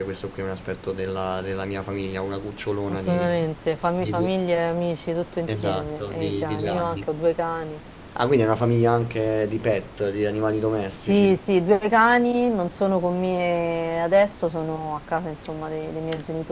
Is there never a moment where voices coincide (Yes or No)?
No